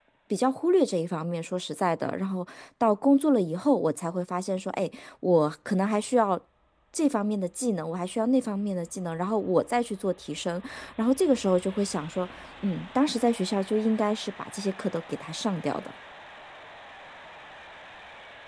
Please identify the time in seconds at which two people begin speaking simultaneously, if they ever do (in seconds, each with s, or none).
none